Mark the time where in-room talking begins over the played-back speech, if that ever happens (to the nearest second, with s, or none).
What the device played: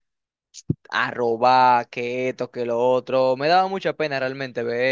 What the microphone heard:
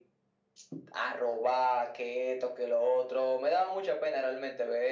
none